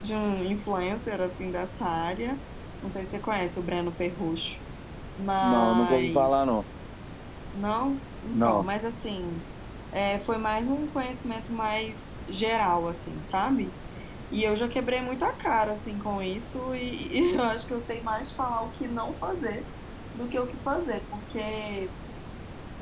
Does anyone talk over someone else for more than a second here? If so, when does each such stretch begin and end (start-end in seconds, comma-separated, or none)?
5.4-6.6